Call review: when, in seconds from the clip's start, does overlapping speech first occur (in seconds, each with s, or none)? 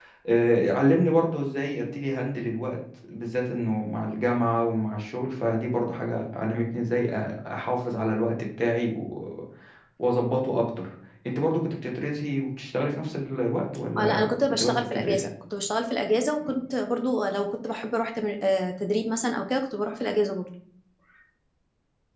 14.0 s